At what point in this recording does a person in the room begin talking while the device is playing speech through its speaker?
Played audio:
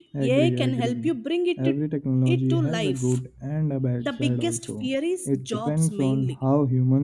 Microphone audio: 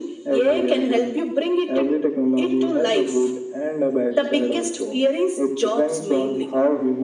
none

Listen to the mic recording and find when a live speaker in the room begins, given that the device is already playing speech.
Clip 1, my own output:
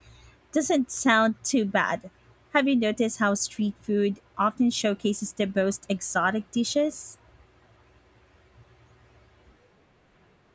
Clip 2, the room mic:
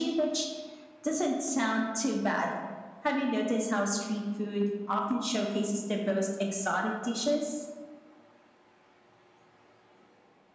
none

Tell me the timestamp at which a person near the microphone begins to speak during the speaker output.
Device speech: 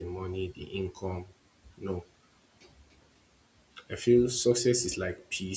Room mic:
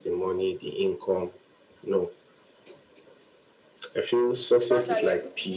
5 s

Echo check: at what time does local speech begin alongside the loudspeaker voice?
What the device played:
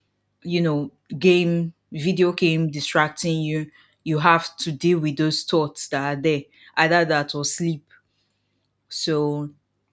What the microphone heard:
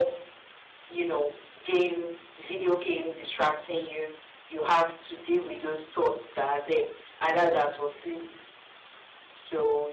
none

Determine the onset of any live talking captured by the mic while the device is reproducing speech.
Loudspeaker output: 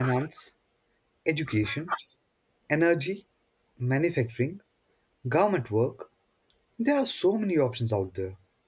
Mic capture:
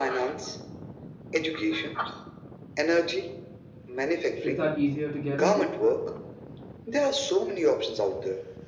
4 s

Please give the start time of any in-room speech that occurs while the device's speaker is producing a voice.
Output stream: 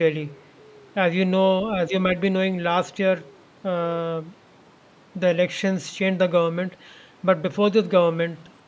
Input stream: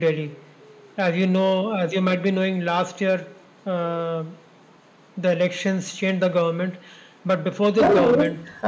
8 s

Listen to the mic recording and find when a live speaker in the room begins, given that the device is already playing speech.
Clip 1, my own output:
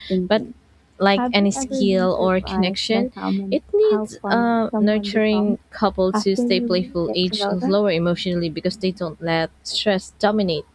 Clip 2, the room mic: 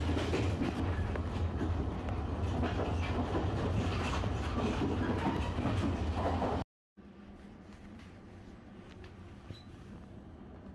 none

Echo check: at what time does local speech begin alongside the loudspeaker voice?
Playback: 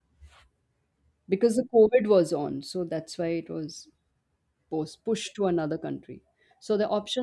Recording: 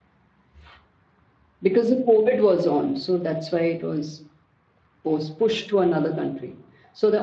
none

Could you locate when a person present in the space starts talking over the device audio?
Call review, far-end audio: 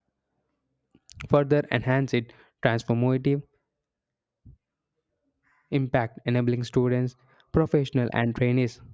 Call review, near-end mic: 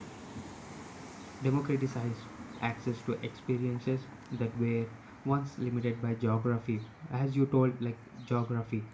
1 s

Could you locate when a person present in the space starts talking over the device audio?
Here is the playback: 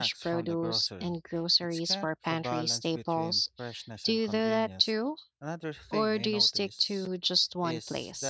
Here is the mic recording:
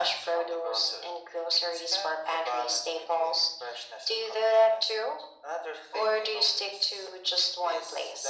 none

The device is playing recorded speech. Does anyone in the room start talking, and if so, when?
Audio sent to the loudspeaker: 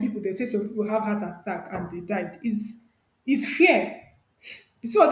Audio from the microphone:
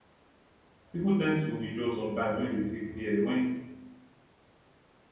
1 s

